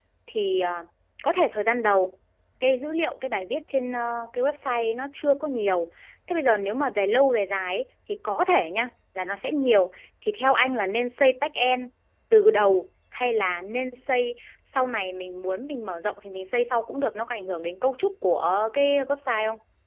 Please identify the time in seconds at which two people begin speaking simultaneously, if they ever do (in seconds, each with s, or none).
none